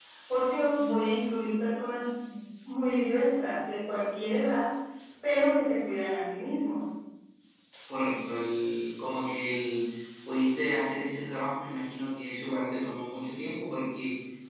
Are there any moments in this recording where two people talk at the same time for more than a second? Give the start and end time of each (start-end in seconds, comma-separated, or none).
none